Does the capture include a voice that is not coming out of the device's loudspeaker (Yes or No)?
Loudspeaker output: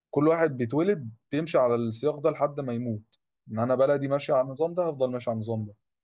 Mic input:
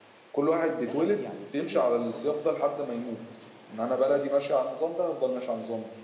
Yes